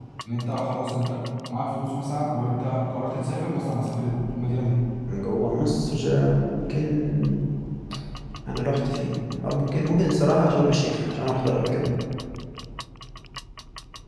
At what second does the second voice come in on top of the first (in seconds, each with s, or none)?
none